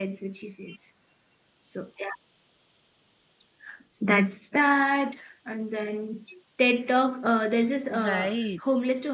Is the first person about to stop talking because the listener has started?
No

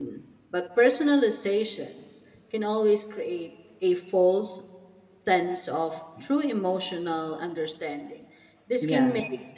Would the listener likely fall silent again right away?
Yes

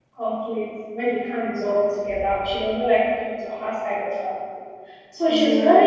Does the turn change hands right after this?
No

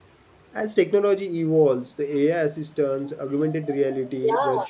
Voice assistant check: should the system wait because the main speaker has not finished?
Yes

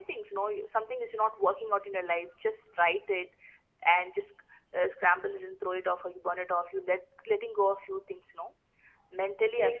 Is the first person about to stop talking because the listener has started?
Yes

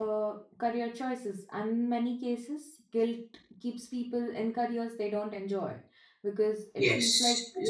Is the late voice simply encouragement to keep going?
No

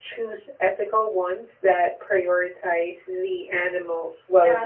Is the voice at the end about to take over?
Yes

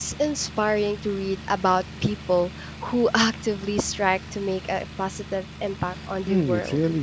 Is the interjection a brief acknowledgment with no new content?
No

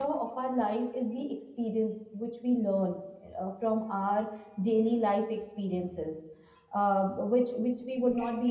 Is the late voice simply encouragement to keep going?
Yes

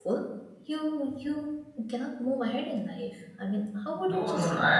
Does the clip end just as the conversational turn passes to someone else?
Yes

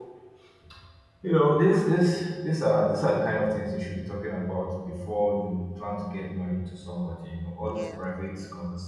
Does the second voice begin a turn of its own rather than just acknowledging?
No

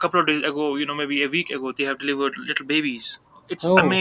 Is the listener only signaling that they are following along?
Yes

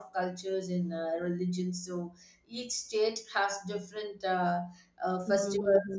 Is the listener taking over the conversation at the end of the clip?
Yes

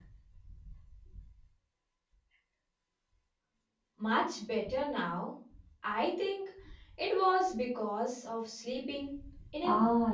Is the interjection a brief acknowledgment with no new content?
No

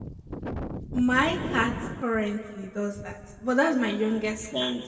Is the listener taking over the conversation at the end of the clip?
Yes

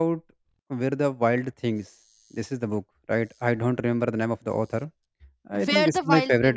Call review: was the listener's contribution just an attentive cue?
No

